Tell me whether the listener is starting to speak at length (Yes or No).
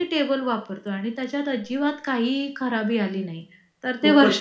Yes